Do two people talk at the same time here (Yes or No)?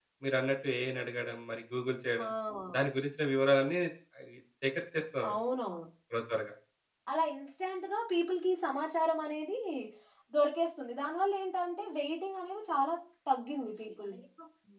No